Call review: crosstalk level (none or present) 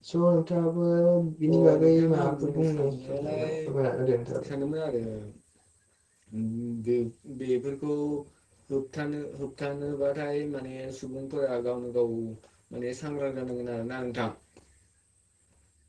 present